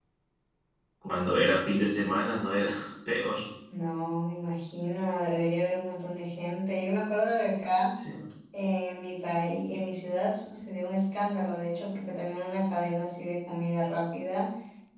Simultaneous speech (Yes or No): No